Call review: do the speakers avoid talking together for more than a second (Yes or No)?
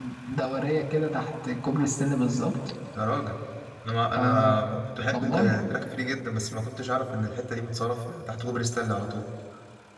Yes